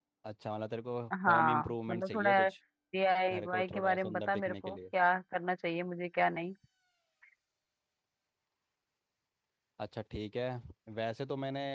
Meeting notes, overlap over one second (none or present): present